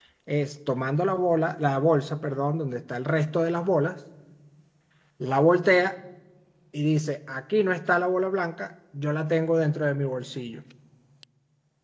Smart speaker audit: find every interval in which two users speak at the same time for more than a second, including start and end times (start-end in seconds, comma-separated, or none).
none